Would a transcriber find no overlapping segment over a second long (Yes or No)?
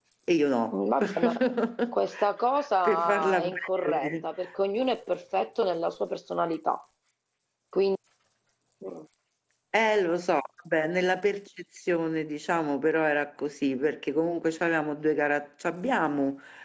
No